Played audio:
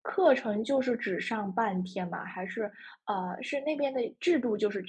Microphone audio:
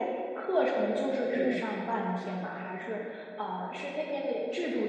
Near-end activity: present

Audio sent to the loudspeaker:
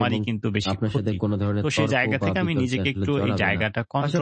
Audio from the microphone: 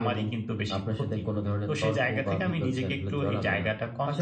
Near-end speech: none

